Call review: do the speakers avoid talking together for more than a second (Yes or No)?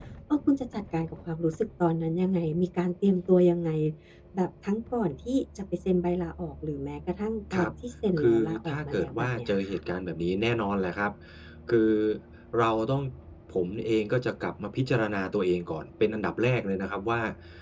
No